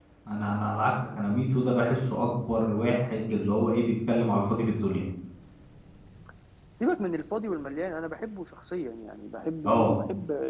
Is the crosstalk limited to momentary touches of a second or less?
Yes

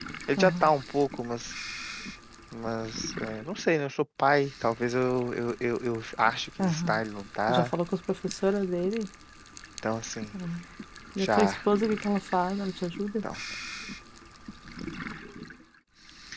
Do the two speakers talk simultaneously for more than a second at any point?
No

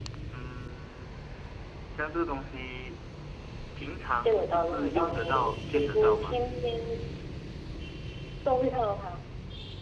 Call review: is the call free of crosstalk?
No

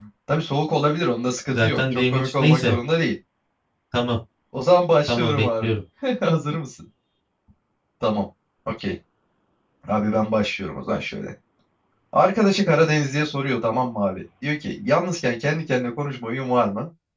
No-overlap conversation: No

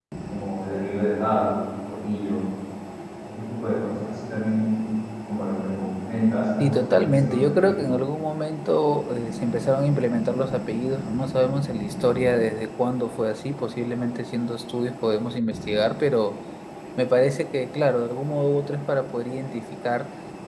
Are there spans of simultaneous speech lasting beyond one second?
Yes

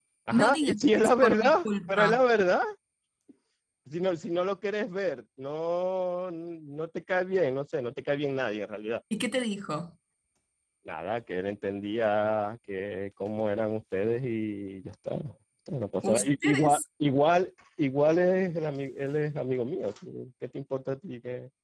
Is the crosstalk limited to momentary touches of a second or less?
No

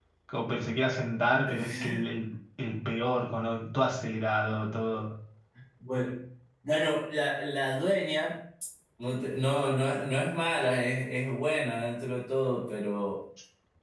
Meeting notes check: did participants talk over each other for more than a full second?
No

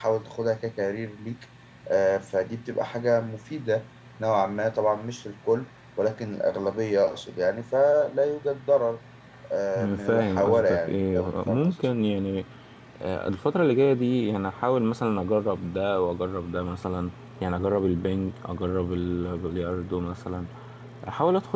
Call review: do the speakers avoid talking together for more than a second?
No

